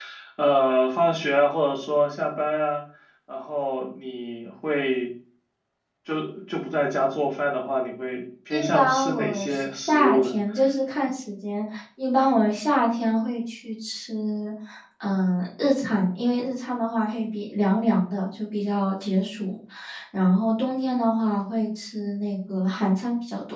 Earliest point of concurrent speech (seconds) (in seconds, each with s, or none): 8.5 s